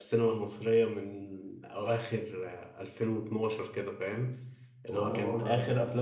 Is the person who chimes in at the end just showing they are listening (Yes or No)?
Yes